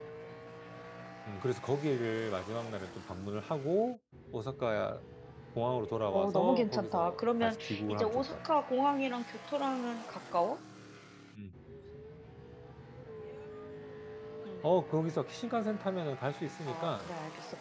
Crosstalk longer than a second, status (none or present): present